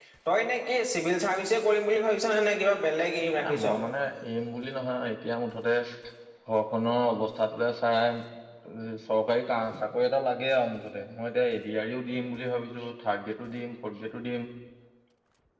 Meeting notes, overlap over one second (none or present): none